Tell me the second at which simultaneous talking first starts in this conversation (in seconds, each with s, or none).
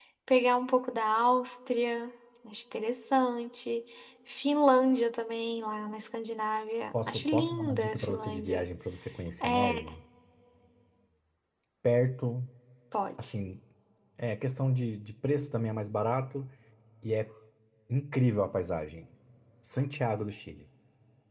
7.1 s